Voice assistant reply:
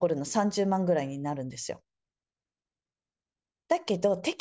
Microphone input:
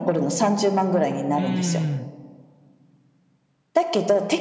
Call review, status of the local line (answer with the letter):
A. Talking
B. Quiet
A